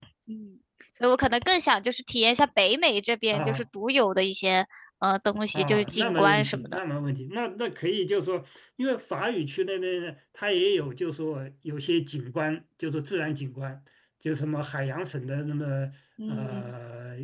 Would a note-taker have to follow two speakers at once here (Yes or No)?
Yes